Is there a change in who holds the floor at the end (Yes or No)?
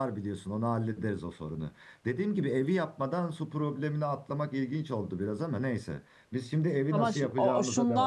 Yes